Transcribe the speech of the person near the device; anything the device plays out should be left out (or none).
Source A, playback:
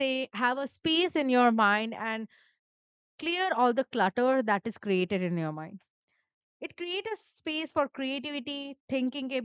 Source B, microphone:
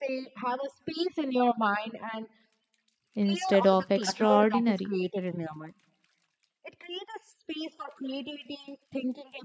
instead of extraordinary